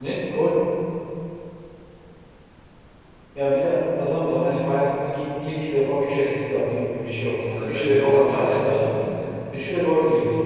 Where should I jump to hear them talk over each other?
7.5 s

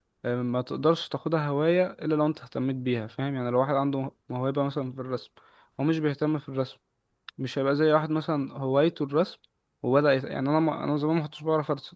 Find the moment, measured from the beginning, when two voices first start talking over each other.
none

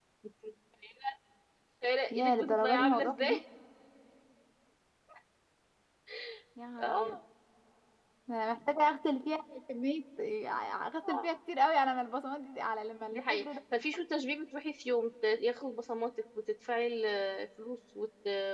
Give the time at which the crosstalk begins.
2.1 s

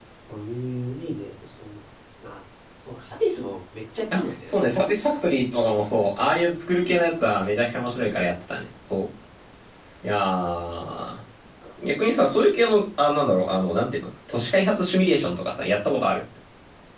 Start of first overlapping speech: none

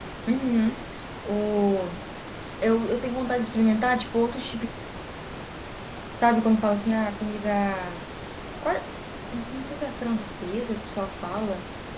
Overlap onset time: none

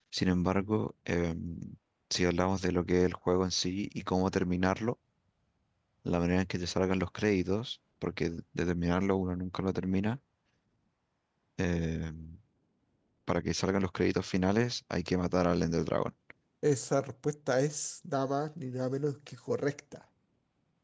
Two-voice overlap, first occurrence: none

